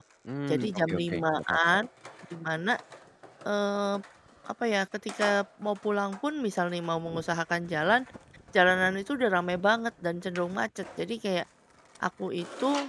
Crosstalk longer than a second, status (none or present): present